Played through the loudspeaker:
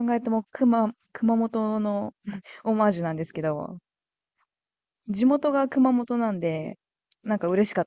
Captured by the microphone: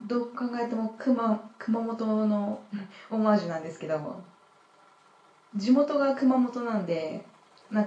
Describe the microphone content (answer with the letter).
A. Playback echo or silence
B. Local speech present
A